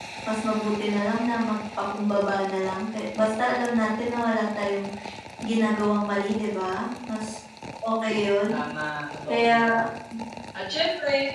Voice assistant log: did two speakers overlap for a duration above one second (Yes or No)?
No